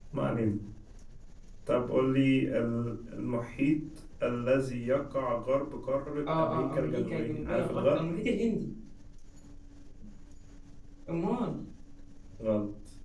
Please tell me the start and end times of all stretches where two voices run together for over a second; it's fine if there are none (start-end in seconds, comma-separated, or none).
6.3-8.0